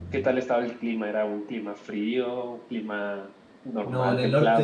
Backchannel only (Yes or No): No